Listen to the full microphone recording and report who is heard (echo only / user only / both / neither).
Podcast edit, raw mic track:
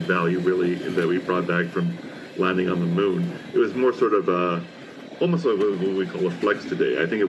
echo only